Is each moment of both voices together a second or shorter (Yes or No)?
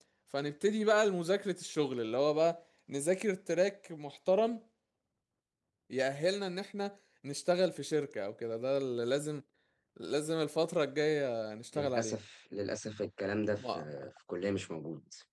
Yes